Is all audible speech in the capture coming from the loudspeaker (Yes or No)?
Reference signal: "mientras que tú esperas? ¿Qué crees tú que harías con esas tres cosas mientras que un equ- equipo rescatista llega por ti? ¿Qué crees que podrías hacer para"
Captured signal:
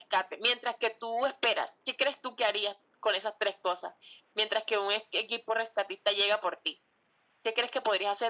Yes